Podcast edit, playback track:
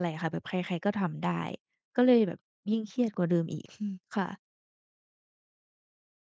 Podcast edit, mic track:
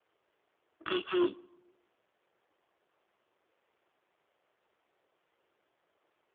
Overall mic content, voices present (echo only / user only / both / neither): user only